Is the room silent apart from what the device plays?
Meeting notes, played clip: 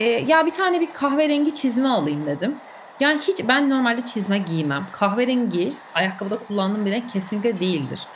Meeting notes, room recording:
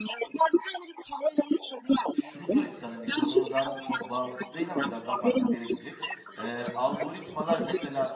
No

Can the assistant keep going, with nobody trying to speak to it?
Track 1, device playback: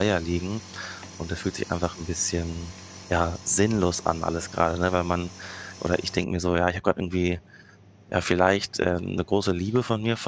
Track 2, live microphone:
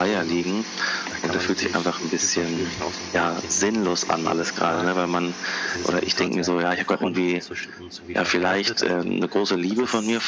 No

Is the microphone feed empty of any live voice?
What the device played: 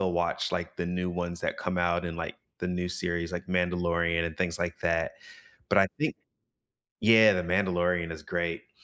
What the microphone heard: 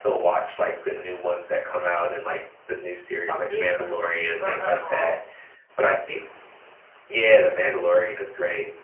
No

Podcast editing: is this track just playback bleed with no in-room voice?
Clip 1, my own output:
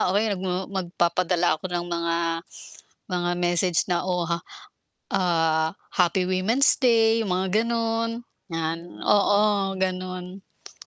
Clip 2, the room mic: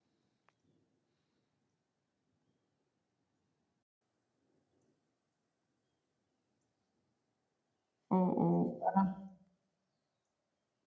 No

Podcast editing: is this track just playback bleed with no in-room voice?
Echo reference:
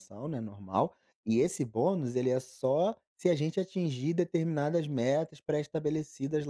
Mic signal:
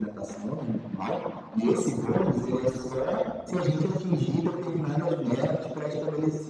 Yes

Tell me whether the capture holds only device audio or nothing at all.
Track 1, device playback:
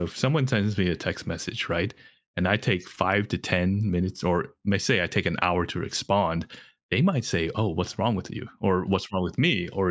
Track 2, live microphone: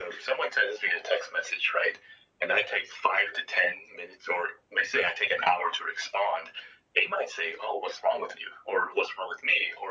Yes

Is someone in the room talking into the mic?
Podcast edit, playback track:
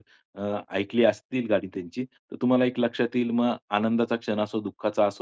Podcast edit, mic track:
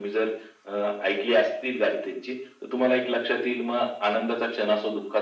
No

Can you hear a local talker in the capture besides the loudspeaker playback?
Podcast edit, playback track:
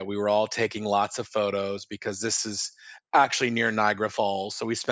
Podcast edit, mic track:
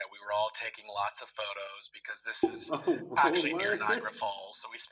Yes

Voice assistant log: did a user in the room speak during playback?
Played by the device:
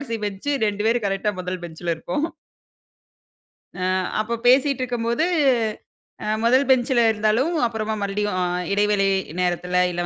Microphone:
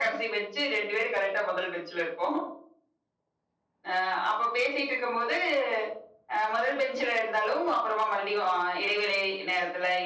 No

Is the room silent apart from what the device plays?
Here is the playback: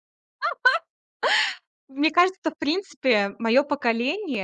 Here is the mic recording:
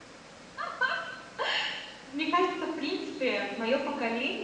Yes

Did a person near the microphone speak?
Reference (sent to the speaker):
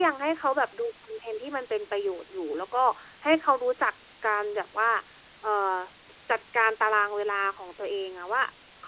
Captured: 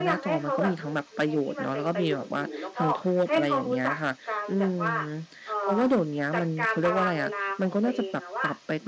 Yes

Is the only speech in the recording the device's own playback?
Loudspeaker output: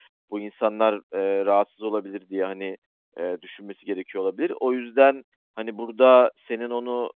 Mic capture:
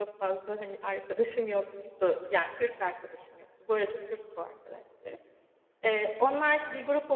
No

